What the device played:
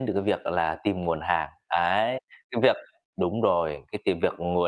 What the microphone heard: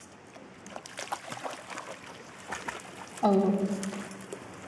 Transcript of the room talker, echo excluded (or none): Ừ.